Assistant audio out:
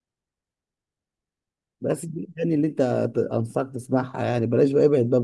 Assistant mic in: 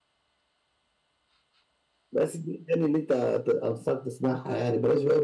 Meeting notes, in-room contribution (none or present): none